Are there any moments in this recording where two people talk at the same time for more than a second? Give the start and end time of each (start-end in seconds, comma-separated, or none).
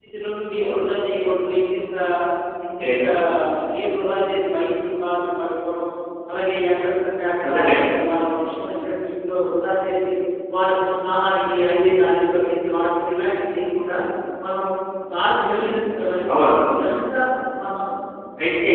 none